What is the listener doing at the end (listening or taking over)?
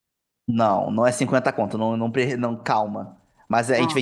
listening